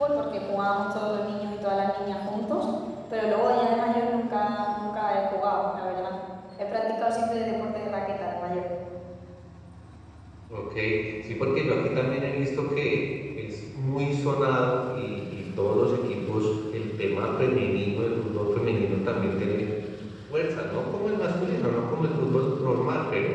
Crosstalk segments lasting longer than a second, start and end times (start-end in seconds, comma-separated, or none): none